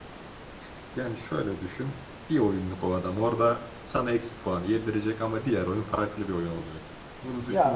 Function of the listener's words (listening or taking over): listening